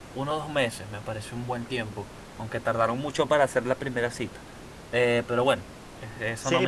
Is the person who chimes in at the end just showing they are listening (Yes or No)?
No